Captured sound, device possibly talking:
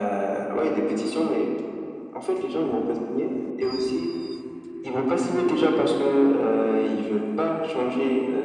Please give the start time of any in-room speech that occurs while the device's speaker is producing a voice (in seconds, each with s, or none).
none